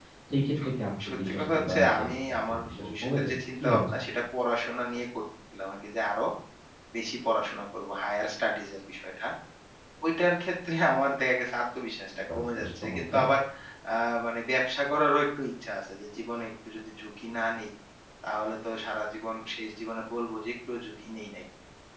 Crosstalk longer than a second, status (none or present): present